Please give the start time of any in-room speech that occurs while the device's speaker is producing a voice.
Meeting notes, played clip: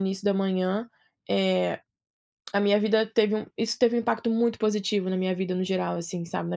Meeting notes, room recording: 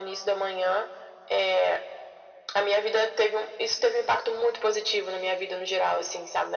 none

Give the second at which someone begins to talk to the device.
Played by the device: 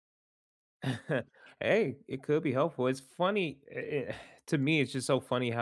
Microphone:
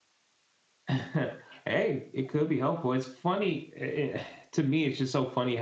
none

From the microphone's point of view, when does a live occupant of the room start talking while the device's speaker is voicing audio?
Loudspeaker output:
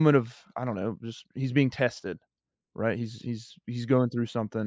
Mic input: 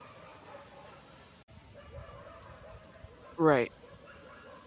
3.4 s

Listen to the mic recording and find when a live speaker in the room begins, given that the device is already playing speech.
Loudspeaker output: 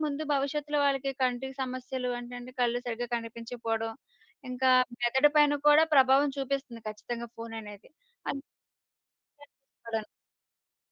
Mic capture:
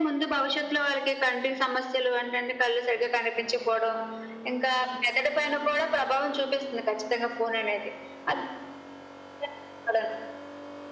none

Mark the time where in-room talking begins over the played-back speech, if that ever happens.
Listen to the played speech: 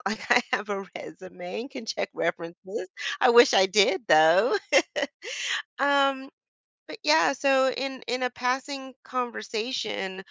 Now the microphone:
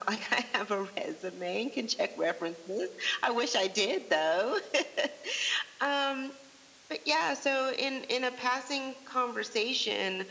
none

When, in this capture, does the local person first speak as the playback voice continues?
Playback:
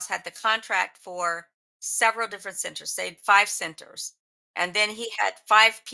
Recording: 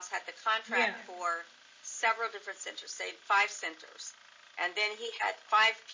0.6 s

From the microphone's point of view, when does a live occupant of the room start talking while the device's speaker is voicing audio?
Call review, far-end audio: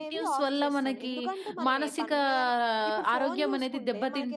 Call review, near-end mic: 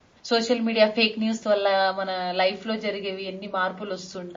0.3 s

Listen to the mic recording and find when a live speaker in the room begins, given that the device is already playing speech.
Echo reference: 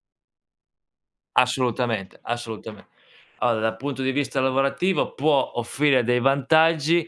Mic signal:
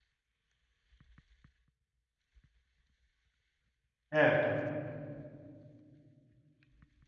4.1 s

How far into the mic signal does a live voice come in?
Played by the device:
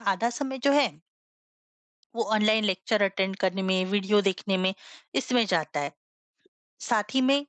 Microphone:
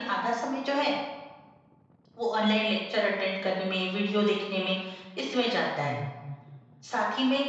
5.8 s

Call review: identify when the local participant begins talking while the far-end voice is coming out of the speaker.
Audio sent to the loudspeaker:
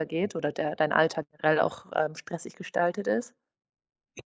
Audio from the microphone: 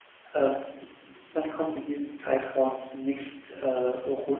0.3 s

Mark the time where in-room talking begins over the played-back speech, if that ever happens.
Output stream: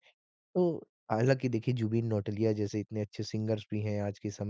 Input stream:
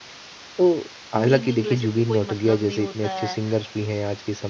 1.2 s

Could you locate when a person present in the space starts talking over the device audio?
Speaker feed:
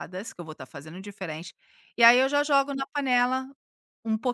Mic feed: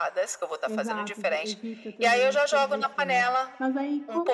0.6 s

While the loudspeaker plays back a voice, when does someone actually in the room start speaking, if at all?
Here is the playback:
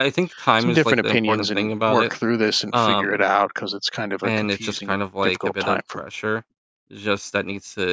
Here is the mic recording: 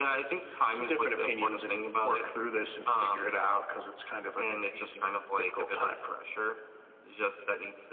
none

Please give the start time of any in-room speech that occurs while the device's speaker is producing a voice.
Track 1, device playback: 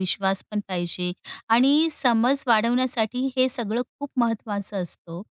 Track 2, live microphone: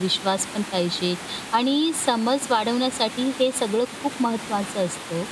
none

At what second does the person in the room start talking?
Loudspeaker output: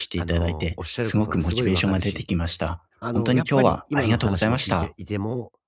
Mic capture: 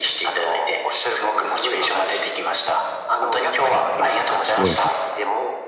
4.5 s

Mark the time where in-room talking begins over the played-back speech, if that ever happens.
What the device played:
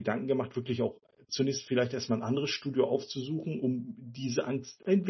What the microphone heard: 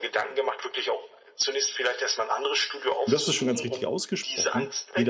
3.0 s

